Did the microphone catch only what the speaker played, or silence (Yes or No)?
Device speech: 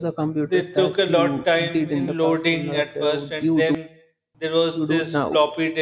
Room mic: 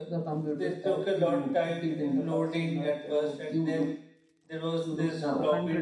No